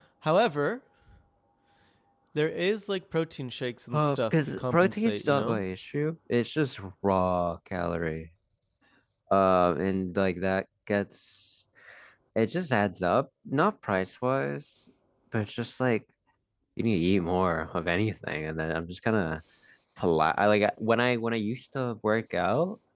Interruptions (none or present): present